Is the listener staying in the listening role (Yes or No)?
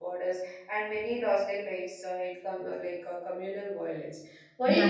Yes